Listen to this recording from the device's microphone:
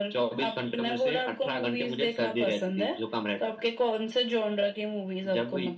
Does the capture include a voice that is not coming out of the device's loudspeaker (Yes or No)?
No